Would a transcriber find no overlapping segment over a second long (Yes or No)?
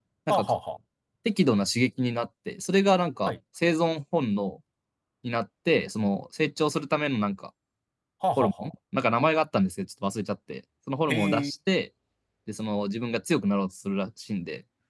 Yes